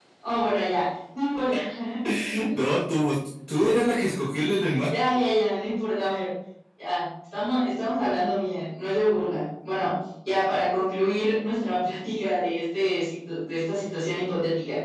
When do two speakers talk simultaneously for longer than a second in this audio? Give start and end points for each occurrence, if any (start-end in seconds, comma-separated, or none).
none